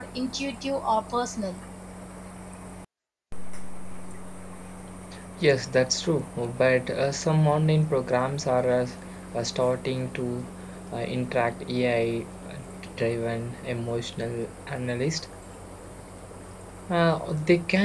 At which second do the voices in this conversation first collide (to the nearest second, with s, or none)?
none